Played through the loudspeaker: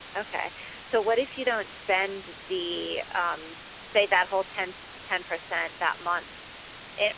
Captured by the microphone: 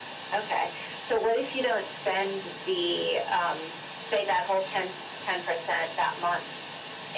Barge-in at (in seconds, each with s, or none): none